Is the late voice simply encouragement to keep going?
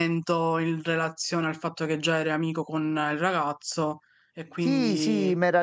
No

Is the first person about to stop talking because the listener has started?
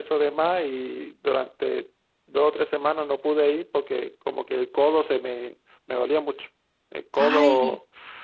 No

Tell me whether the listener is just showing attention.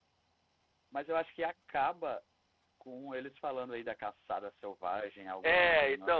No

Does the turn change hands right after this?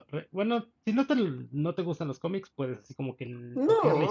Yes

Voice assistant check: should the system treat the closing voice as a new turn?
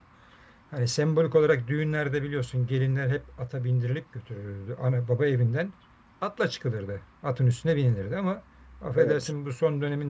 No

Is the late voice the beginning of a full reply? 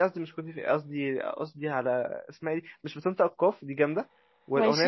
No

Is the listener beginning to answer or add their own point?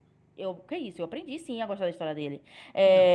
No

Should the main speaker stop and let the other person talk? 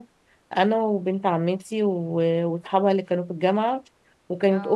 No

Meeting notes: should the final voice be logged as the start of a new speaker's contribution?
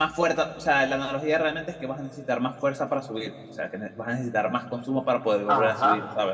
Yes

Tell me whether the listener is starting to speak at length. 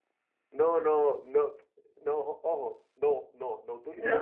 No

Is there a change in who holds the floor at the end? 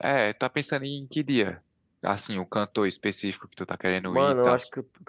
Yes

